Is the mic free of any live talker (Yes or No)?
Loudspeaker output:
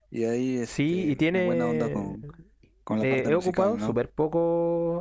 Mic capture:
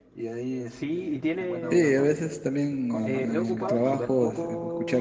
No